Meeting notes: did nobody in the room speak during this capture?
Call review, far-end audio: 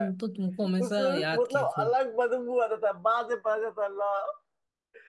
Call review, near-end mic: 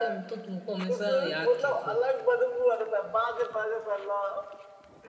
Yes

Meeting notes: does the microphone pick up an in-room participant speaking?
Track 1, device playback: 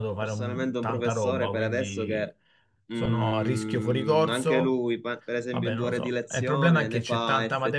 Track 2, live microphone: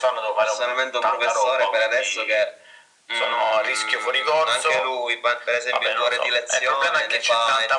No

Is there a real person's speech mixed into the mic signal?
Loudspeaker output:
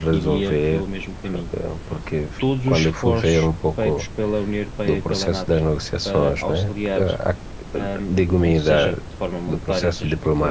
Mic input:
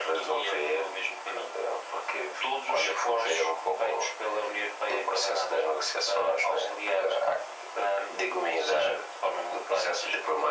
No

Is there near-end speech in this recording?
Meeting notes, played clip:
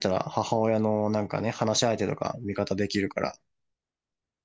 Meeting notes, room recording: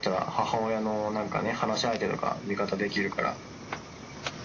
No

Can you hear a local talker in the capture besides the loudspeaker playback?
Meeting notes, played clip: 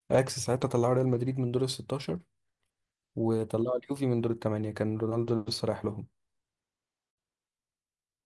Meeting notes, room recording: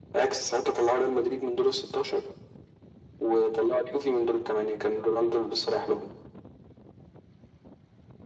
No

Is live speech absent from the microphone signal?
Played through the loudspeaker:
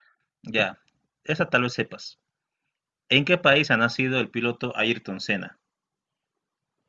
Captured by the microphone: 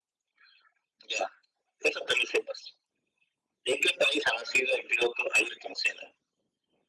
Yes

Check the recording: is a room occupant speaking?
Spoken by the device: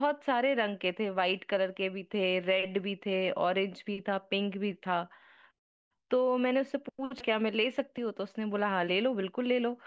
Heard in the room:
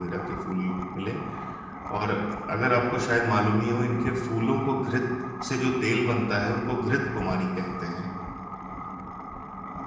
Yes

